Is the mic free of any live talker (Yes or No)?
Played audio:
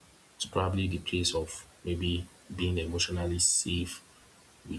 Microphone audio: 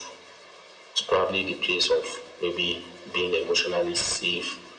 Yes